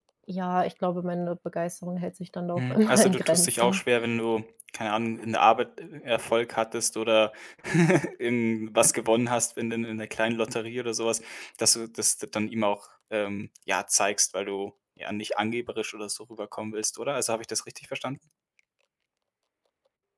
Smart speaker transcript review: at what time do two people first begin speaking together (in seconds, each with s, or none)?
2.6 s